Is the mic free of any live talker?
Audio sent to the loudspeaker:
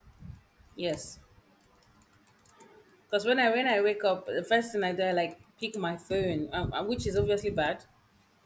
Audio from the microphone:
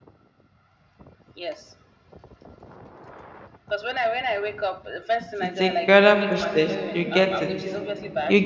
No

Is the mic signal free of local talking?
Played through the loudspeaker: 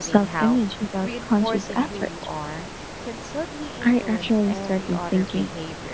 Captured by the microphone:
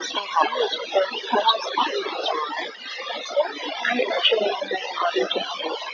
Yes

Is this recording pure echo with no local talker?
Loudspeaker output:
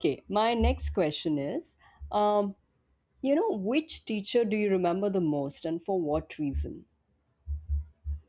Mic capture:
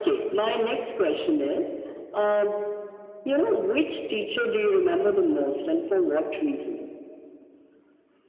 Yes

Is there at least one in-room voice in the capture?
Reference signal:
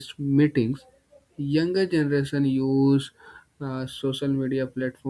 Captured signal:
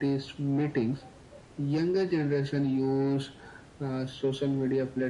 No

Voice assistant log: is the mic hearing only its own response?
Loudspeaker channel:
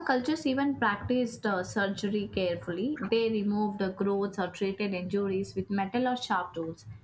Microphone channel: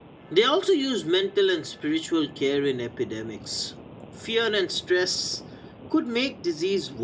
No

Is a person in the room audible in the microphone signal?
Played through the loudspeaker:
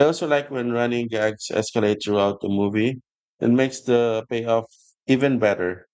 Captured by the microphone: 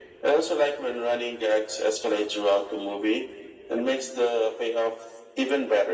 No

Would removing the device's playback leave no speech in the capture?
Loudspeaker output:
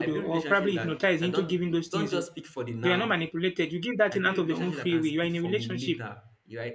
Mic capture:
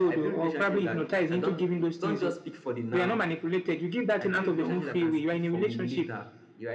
Yes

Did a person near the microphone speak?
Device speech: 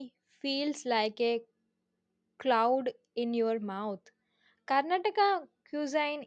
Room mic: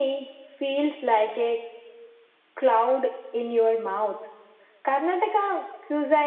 No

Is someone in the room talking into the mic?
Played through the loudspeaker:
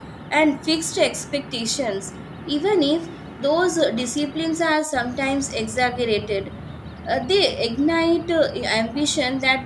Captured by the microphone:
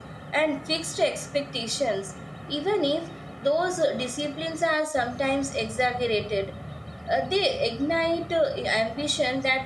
No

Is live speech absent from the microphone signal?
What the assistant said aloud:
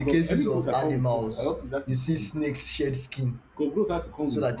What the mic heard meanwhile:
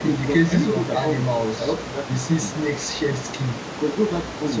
Yes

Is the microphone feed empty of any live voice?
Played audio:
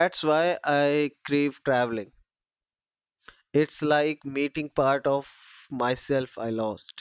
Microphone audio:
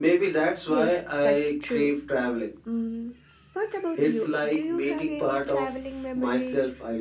No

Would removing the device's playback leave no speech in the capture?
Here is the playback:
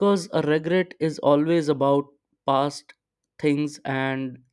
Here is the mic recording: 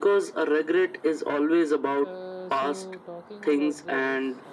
No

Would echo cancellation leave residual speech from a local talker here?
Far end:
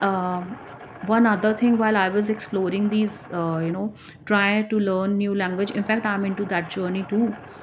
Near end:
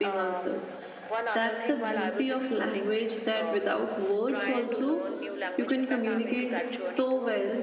Yes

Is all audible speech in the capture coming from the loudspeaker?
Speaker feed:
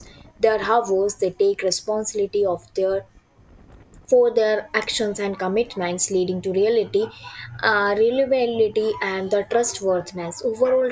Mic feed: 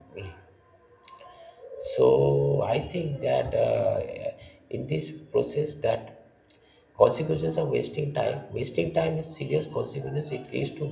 No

